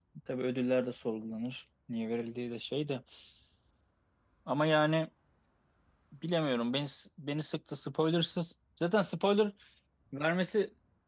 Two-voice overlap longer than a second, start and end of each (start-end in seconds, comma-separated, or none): none